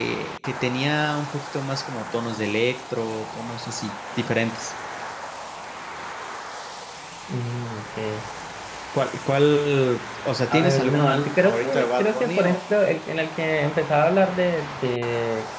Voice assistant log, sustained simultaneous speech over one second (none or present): present